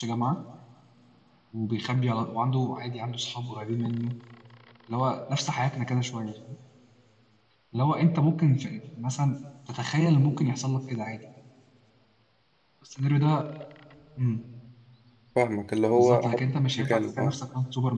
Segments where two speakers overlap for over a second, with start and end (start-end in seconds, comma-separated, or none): 16.0-17.4